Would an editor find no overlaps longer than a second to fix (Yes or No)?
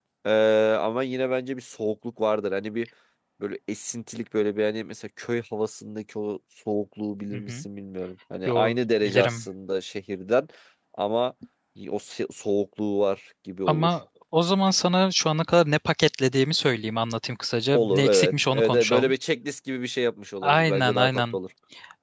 No